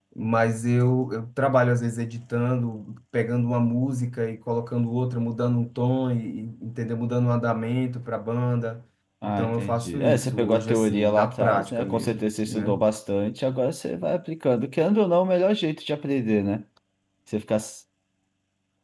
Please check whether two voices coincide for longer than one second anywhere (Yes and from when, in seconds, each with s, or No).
Yes, from 9.4 s